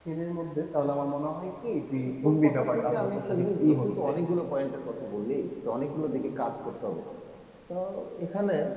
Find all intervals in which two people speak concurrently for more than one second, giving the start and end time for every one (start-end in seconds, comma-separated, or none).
2.2-3.9